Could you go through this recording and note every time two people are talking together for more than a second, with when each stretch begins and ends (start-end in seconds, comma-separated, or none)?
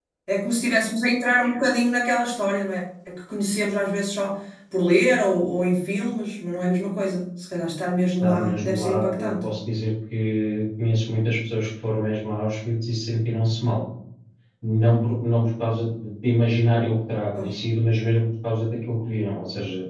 8.2-9.4